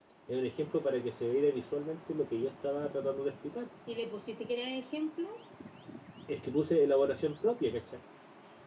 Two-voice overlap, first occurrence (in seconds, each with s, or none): none